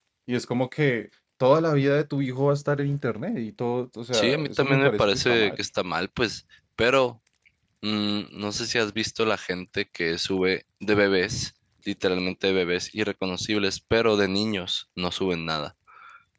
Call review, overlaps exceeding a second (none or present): present